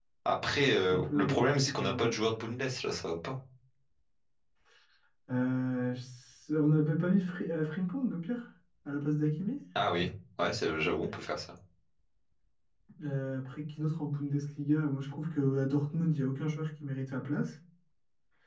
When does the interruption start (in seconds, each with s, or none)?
0.9 s